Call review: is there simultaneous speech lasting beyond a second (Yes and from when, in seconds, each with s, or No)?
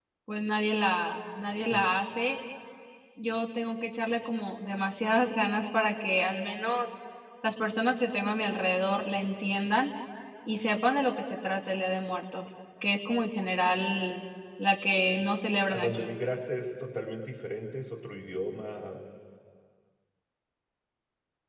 No